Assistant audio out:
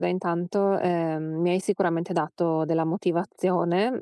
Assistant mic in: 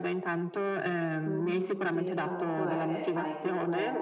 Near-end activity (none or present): present